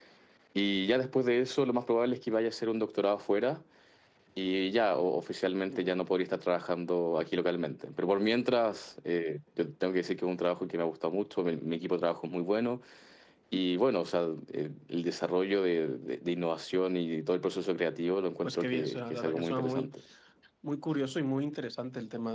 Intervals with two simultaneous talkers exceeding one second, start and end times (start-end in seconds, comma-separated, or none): 18.4-19.9